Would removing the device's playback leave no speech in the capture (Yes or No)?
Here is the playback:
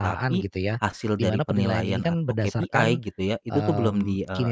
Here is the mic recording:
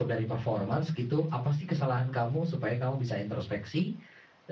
No